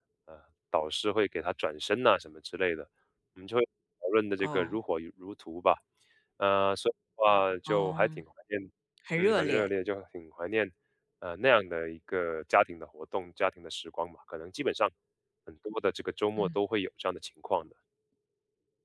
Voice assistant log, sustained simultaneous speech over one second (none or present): none